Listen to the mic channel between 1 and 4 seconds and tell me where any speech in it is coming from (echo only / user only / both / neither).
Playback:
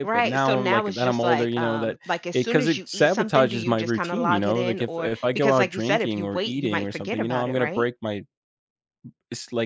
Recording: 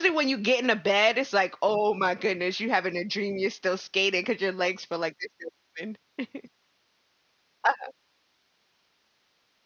user only